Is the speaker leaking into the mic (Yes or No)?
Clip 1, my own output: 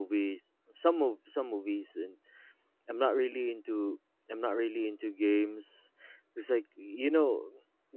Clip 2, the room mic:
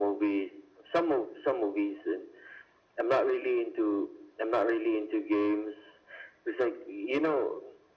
Yes